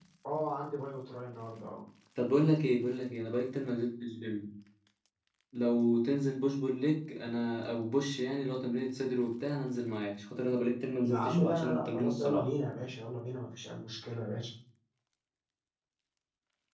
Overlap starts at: 11.0 s

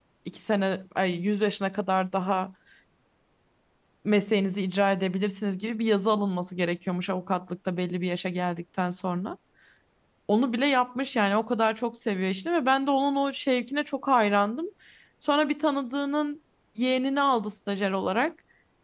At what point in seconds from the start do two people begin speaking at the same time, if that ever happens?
none

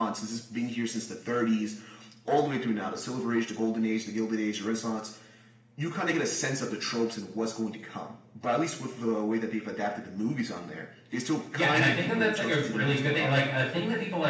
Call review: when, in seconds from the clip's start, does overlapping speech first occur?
11.5 s

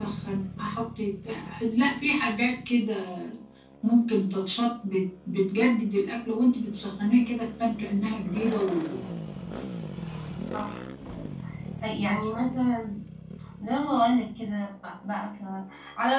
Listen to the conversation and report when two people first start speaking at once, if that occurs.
none

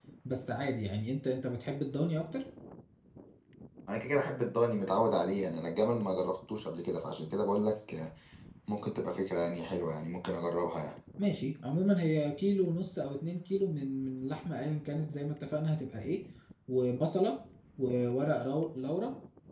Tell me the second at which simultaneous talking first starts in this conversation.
none

